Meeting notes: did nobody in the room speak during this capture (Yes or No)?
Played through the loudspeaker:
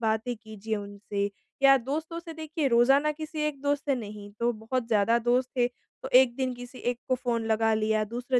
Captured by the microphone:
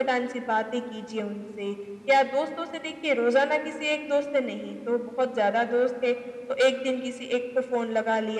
Yes